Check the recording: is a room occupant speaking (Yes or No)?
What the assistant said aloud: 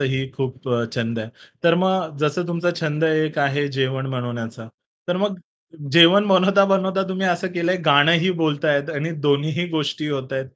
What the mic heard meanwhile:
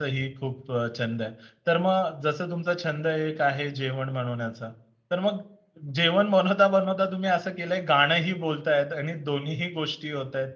No